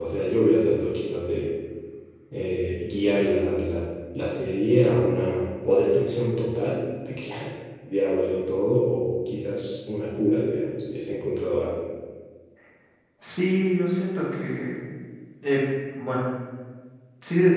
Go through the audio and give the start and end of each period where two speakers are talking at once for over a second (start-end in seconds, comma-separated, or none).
none